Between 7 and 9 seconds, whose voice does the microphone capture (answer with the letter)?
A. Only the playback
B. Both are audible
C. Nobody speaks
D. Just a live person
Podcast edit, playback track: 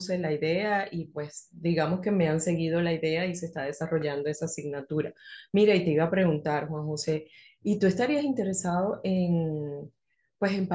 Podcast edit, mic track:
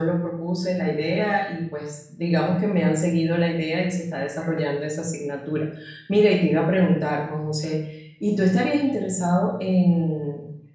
A